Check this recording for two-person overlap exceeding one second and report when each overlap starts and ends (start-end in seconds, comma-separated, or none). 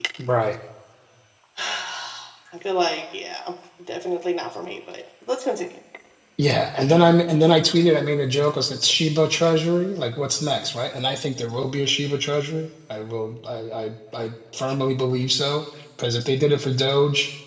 none